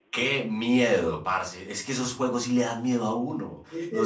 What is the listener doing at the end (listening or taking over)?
listening